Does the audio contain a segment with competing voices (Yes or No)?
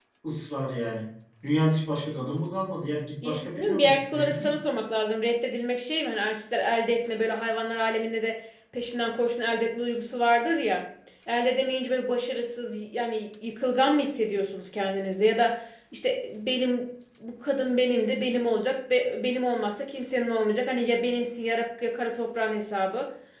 Yes